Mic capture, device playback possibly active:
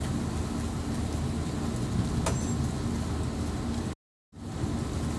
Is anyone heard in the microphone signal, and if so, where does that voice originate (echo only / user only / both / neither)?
neither